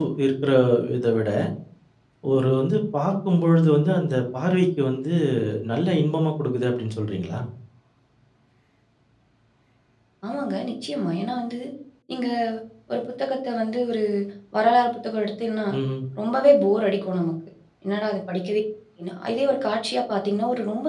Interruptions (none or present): none